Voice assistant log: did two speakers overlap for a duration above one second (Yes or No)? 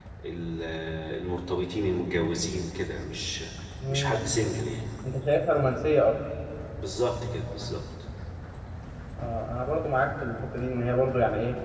No